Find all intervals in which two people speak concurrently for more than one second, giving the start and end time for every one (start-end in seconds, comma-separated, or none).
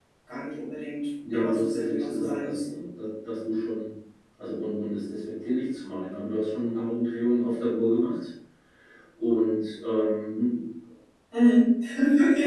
1.3-2.7